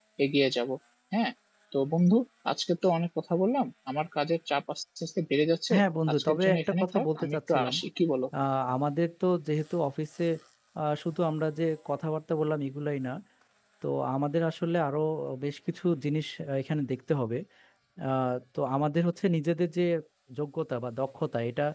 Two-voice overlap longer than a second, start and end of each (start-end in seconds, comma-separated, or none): 6.1-7.7